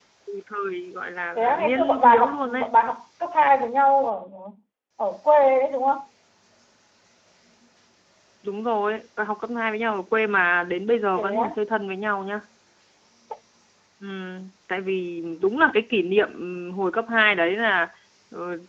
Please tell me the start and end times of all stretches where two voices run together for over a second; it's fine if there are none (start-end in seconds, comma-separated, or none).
1.4-2.7